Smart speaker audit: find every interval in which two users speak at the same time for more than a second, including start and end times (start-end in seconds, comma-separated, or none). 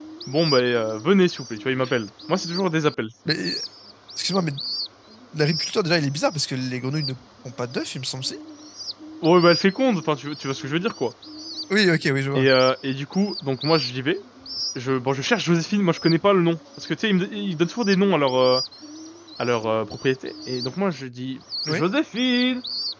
none